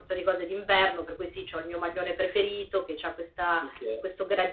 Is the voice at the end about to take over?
No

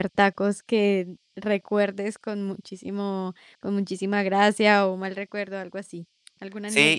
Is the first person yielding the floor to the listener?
Yes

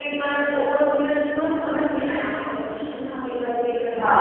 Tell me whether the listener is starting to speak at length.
Yes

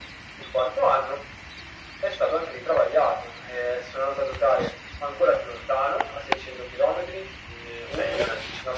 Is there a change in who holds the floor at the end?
Yes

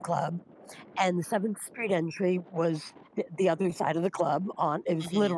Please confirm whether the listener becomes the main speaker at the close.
No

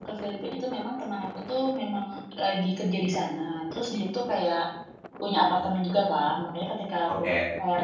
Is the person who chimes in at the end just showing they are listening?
Yes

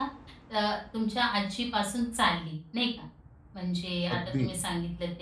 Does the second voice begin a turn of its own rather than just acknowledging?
No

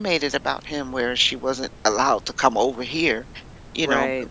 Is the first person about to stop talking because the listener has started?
No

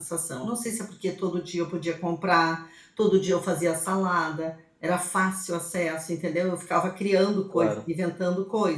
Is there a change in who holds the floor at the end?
No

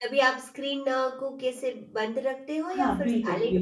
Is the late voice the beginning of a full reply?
Yes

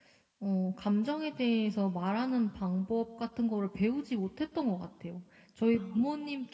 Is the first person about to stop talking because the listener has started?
No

